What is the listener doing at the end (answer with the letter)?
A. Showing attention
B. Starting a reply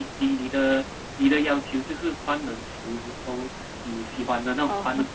A